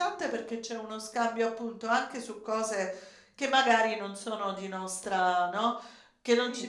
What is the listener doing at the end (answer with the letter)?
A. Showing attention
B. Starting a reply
A